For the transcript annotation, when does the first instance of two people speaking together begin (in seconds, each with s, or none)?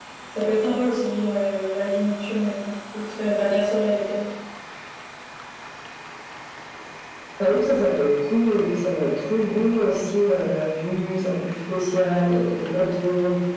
none